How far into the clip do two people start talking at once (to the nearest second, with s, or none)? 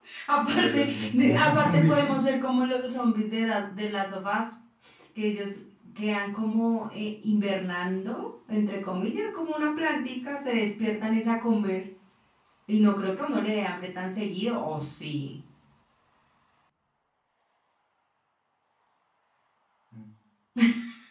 1 s